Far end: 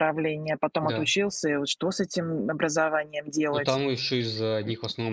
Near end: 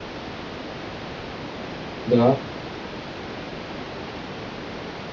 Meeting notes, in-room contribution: present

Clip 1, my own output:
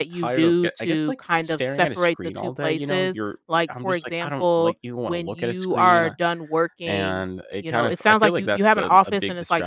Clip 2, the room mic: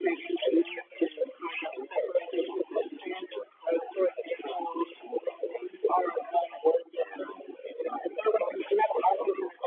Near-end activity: none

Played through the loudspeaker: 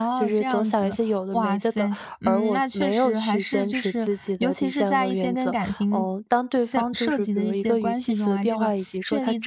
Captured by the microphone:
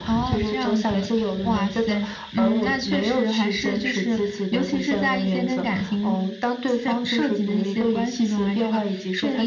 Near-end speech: none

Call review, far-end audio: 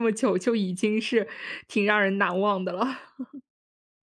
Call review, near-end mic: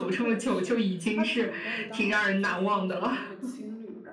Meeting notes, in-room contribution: present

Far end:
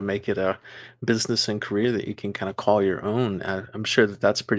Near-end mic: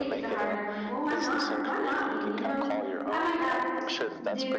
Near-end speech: present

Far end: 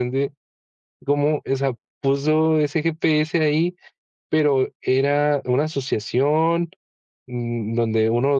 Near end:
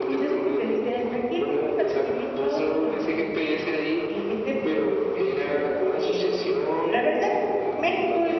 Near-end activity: present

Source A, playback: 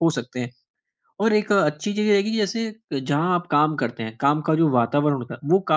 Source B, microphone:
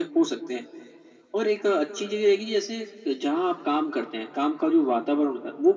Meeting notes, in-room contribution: none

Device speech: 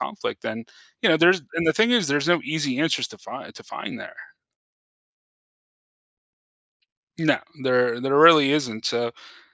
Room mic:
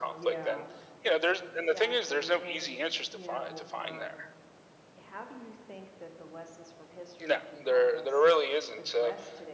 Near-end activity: present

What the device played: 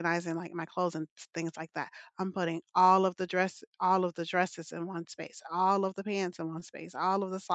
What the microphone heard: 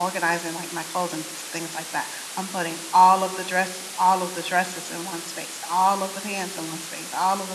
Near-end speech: none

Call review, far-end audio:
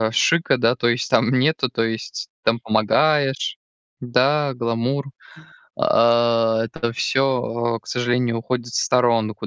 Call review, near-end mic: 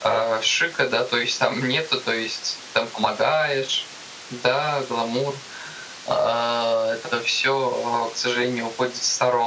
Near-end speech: none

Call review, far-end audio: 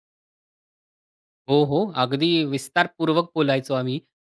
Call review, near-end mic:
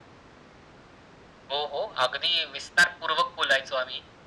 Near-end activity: none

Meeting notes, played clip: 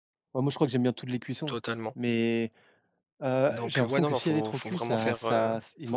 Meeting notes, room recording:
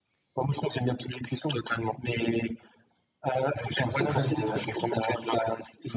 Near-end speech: present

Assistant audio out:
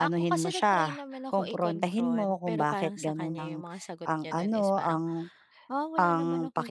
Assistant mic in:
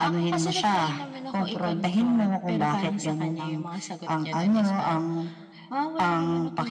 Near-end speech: none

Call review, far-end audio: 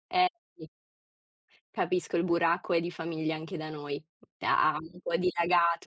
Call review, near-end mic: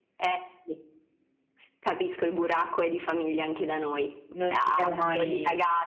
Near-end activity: present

